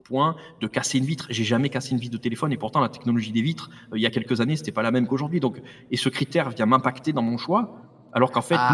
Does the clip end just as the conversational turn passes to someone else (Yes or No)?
Yes